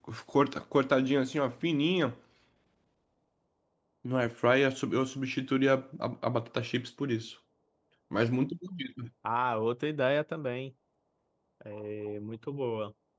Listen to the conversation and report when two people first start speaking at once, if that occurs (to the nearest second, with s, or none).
none